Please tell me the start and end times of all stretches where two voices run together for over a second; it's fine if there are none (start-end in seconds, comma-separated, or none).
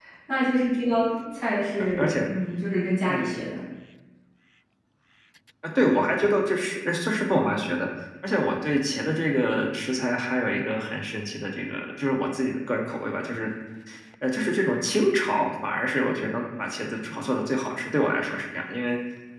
none